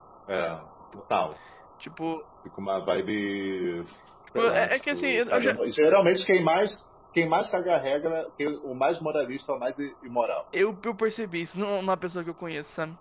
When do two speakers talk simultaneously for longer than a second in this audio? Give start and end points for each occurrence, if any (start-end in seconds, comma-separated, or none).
4.4-5.6